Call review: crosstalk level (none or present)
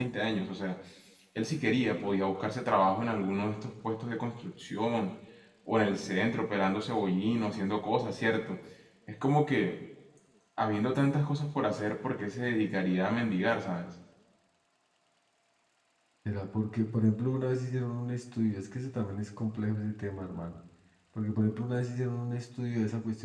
none